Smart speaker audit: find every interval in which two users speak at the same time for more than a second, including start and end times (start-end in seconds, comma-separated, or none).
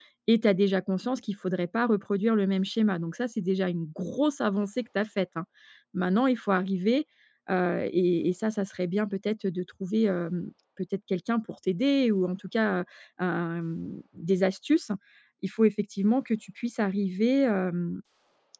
none